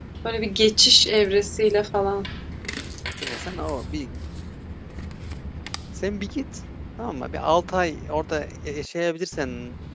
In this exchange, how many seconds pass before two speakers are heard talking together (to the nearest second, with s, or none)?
none